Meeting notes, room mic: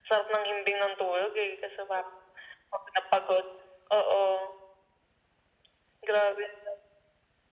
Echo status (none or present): present